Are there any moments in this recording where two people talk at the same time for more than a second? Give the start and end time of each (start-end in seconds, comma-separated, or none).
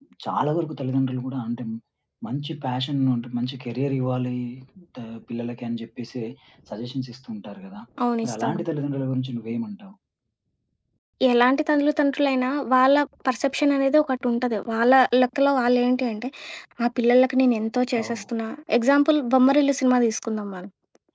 none